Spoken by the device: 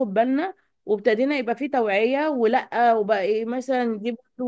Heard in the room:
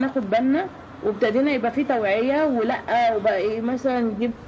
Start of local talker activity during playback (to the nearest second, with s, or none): none